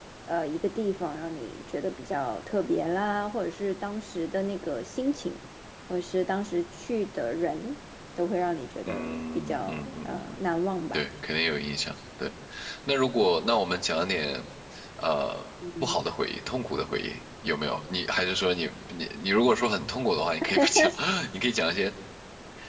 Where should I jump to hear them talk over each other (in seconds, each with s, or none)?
8.8 s